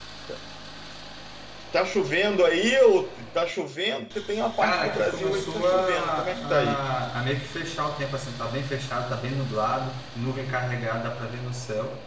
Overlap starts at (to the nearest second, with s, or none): 5 s